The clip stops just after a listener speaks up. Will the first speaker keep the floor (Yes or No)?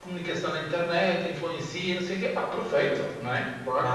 Yes